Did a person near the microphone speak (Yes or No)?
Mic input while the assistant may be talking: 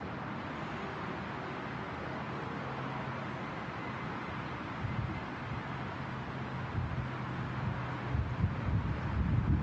No